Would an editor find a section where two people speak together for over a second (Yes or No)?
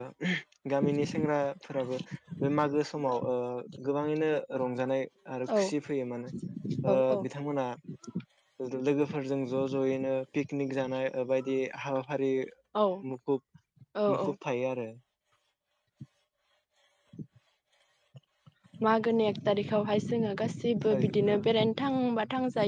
No